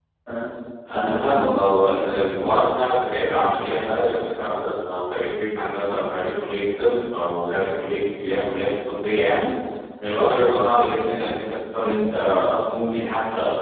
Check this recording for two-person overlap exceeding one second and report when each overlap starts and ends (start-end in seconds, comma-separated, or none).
0.9-2.1